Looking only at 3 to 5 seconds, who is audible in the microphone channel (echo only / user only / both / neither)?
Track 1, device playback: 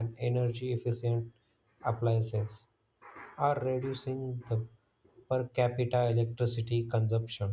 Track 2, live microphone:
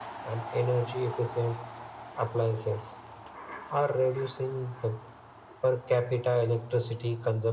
echo only